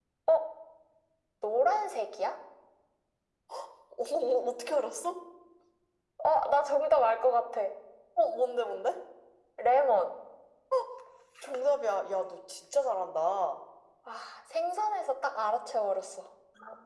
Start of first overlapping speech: none

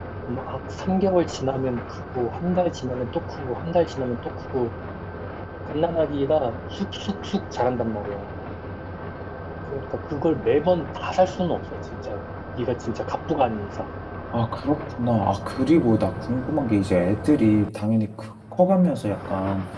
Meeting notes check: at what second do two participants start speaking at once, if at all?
none

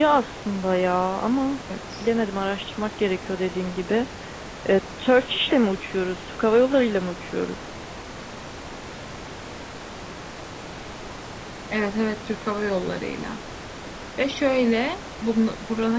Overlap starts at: none

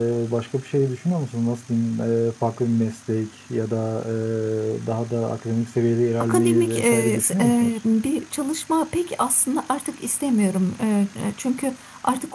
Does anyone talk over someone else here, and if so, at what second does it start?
6 s

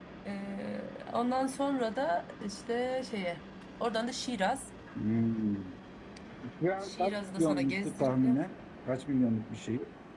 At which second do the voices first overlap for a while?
7 s

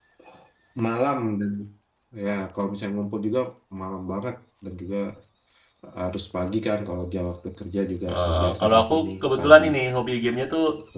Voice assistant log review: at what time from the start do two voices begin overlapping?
8 s

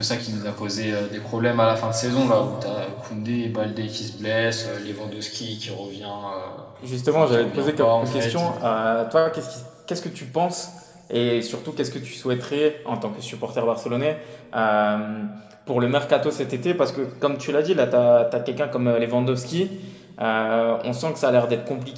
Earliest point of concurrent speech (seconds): 7 s

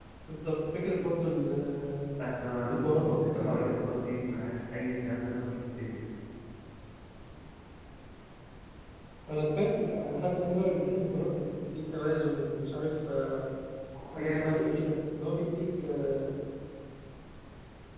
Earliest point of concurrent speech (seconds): 3 s

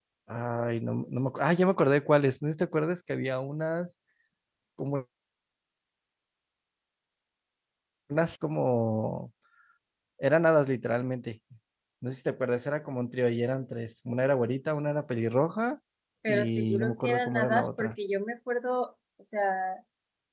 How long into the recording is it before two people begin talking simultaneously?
16 s

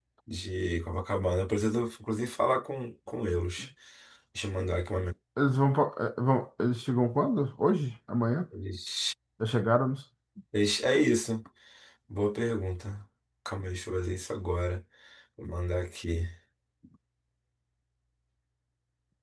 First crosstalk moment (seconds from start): none

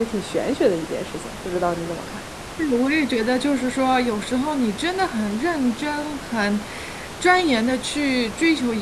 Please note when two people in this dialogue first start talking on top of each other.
none

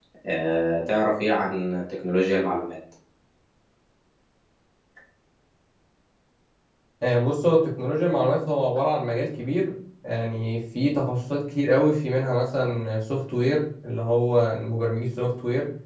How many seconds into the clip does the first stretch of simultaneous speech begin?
none

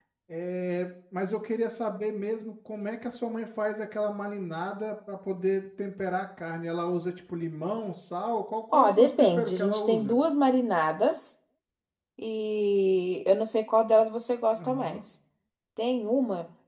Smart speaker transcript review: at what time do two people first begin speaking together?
9 s

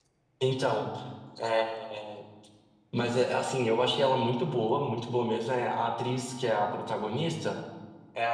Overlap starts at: none

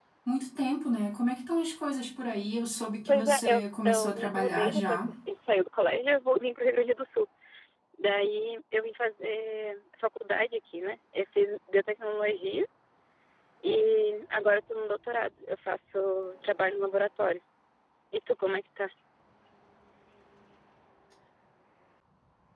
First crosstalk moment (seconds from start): 3 s

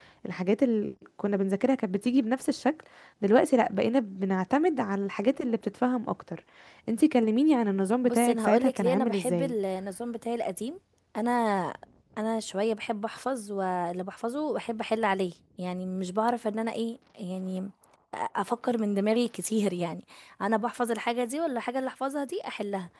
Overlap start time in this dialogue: 8 s

